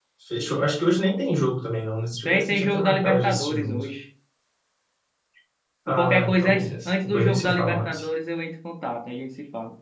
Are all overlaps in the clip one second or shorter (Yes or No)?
No